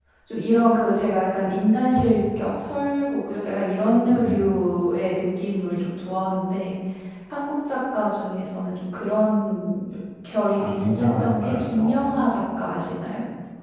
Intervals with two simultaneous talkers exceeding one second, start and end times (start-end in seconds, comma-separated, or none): 10.6-12.0